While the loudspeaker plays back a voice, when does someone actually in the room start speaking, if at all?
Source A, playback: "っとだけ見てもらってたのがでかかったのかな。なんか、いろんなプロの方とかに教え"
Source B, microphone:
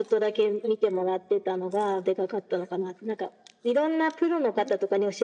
none

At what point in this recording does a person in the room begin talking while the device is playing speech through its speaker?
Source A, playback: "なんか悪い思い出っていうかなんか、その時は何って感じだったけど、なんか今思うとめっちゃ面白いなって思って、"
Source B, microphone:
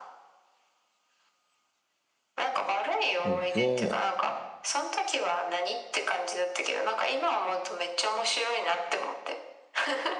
3.2 s

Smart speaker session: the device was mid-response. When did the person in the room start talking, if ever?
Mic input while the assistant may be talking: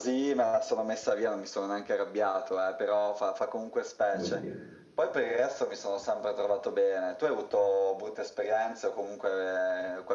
4.2 s

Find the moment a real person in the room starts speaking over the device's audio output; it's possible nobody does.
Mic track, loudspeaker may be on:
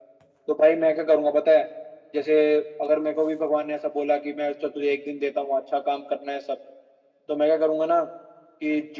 none

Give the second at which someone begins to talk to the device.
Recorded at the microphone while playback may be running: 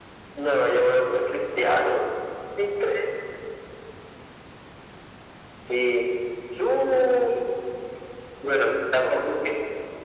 none

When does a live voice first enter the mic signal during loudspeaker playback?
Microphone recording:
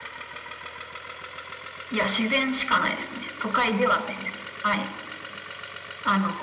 none

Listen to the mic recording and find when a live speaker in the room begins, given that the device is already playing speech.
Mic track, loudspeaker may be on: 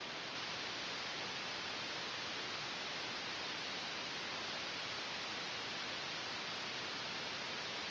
none

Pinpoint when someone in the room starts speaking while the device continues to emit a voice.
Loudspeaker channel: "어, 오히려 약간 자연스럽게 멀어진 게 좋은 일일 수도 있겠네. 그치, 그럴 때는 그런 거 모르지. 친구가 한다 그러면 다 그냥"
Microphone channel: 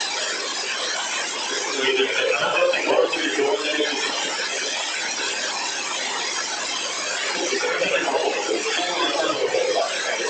none

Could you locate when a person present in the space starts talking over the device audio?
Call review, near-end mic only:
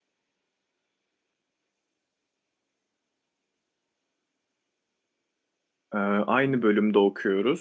5.9 s

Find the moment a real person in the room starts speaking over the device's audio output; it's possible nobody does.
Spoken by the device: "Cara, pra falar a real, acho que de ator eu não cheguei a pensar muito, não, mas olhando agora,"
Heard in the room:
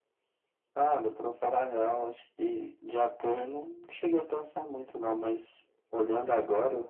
none

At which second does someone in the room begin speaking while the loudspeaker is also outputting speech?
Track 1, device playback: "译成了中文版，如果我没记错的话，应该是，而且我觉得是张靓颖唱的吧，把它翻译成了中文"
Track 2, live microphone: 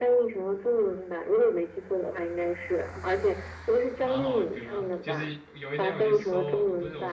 4.0 s

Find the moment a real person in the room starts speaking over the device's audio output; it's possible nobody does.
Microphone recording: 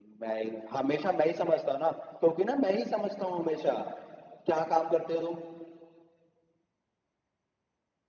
none

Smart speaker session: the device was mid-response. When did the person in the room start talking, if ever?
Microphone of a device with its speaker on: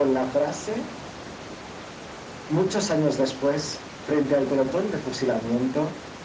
none

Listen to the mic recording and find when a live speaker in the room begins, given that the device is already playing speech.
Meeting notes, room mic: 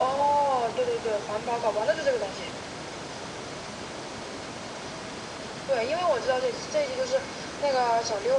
none

